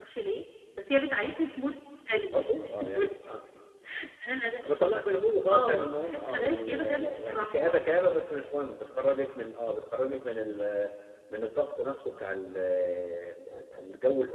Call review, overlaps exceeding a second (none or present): present